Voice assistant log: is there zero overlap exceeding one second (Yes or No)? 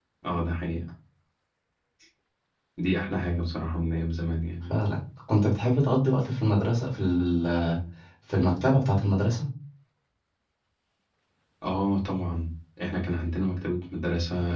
Yes